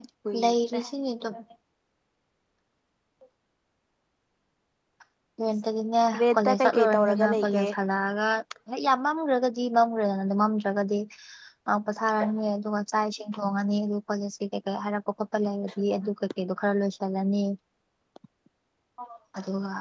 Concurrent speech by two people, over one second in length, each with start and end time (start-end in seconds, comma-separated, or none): 6.3-7.6